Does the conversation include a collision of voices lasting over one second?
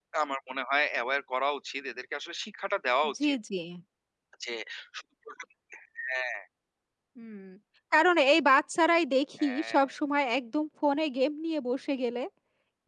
No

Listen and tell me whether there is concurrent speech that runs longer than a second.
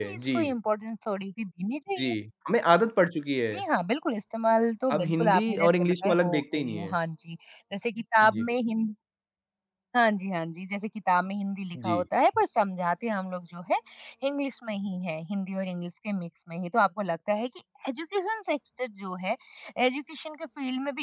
Yes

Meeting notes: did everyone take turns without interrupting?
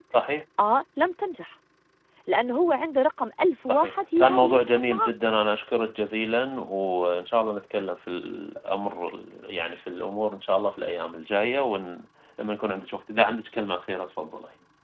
No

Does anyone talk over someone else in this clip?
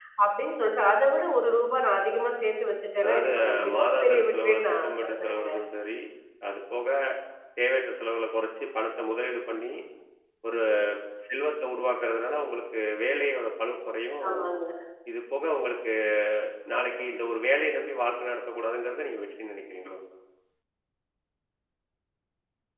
Yes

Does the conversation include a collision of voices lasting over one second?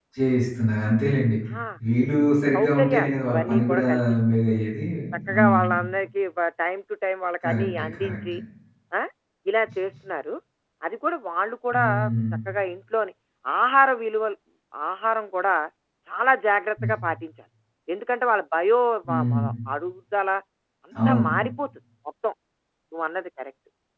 Yes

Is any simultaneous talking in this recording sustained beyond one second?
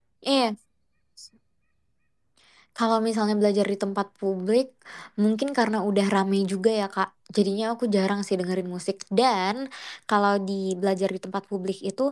No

